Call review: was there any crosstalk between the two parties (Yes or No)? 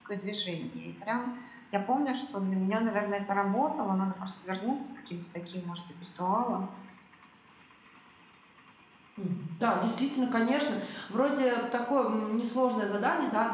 No